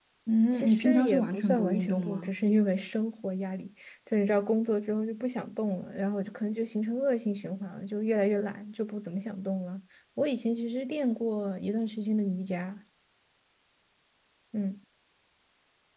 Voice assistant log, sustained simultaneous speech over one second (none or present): present